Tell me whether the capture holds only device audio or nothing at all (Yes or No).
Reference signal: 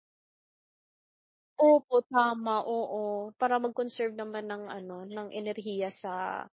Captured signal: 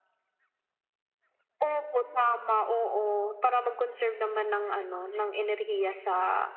Yes